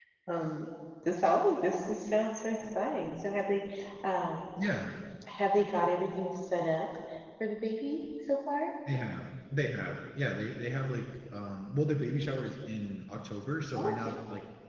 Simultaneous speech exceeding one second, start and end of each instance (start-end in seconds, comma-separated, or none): none